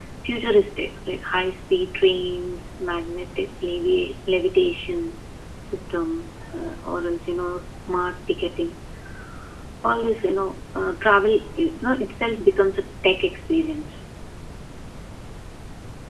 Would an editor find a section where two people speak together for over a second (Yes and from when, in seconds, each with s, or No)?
No